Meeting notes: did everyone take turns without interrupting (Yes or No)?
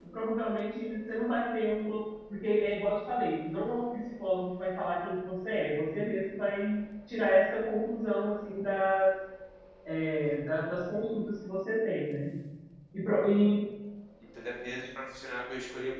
Yes